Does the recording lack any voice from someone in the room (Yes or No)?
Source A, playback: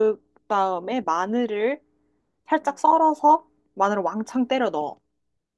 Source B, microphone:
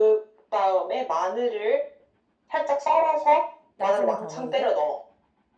No